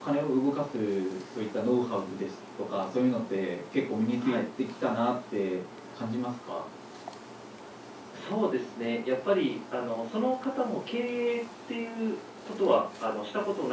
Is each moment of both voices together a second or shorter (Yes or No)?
Yes